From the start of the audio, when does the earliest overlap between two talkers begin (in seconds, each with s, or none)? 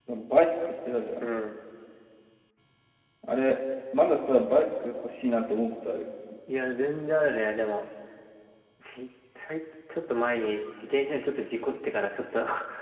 none